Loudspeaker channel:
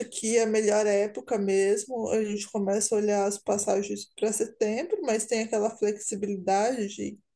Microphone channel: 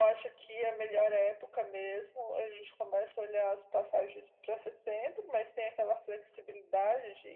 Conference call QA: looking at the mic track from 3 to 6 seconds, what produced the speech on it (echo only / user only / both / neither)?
echo only